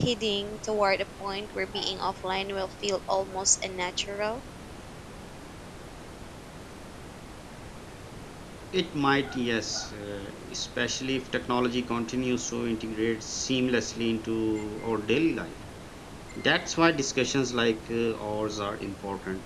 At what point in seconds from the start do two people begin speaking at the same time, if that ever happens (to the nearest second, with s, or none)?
none